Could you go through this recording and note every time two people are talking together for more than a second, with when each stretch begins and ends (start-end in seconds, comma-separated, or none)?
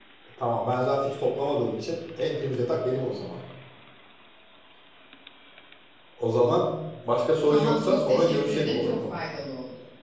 7.5-9.1